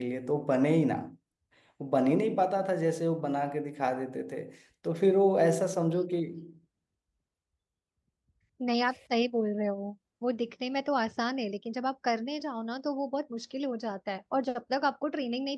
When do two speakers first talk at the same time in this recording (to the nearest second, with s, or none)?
none